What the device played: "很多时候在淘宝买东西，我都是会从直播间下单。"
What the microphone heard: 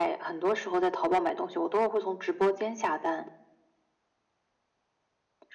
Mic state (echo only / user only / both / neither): echo only